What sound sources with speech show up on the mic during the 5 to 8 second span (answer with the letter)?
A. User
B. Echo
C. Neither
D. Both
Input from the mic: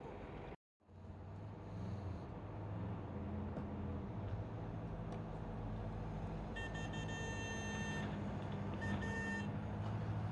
C